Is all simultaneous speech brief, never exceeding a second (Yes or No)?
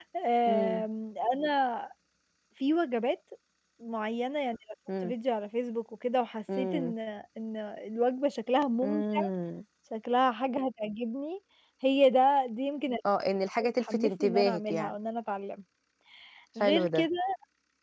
No